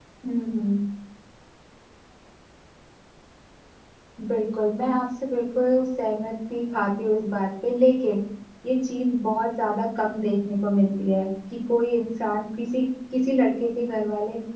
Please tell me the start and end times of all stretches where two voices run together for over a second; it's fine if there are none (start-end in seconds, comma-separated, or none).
none